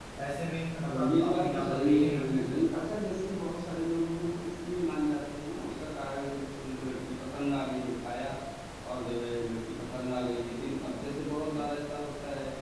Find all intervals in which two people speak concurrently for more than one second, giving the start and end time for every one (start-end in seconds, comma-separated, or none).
0.9-2.4